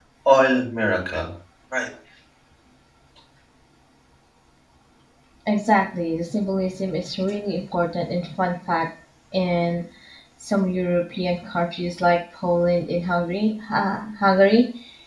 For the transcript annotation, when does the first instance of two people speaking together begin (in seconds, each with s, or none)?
none